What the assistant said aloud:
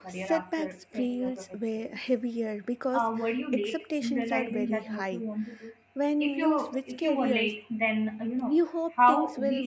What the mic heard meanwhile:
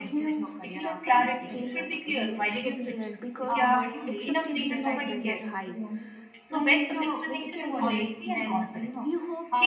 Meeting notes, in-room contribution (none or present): present